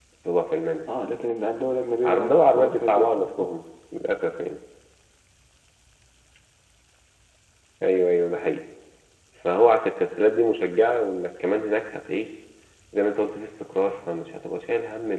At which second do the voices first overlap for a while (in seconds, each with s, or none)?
2.0 s